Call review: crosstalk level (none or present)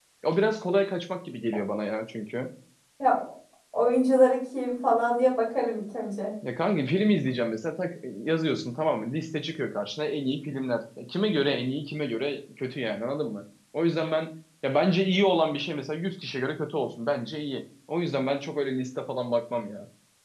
none